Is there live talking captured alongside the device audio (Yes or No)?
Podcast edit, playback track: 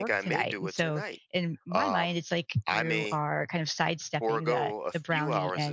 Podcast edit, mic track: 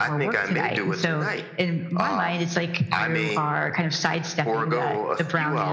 No